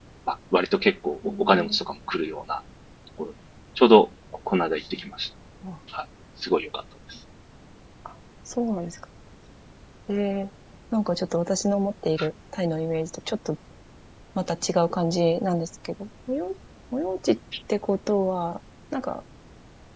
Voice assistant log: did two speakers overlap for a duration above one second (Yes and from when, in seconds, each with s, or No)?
No